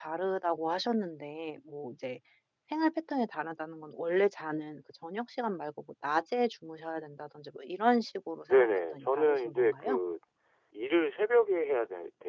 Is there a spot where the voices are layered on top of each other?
Yes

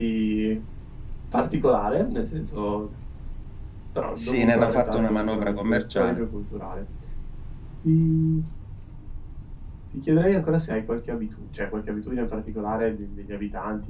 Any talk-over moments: Yes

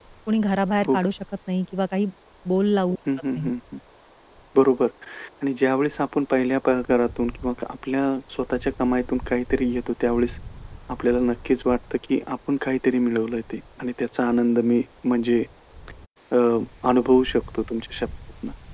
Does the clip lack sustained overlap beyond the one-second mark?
Yes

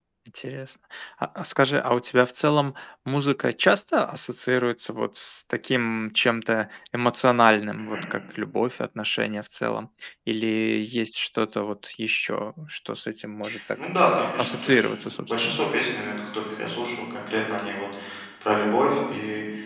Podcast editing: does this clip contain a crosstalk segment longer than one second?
Yes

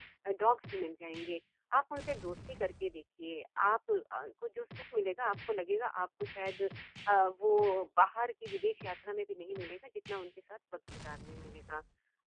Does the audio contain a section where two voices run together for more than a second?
No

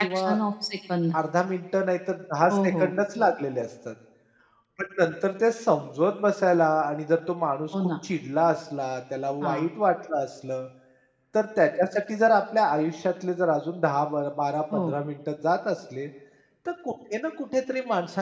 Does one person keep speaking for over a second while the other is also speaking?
No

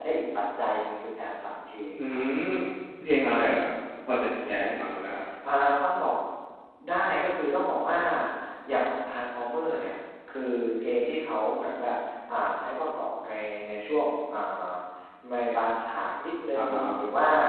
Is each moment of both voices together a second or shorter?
Yes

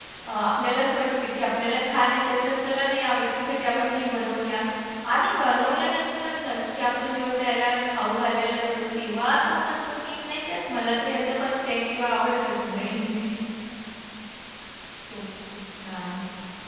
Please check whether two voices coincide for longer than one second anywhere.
No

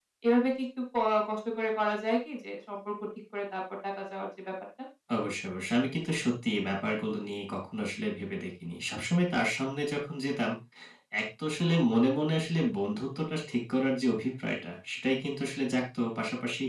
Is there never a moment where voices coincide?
Yes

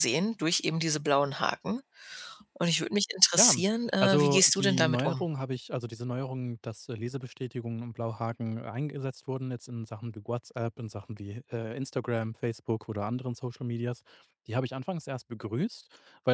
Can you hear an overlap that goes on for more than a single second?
Yes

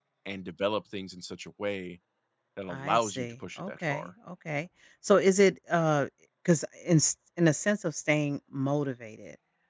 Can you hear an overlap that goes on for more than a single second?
Yes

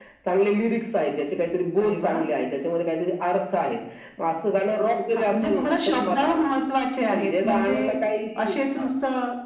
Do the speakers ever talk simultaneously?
Yes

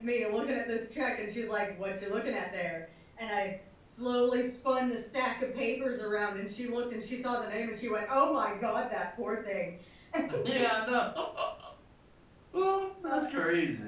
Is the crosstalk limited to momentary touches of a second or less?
Yes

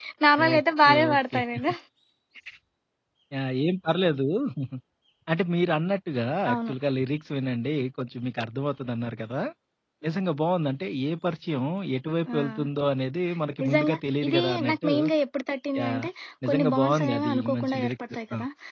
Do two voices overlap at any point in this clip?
Yes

